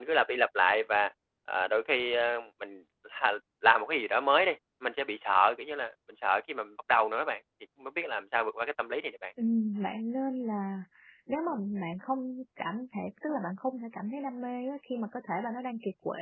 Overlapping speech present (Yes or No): No